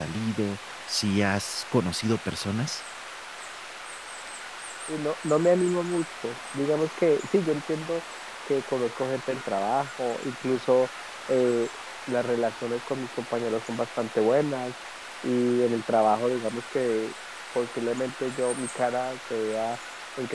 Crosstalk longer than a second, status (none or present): none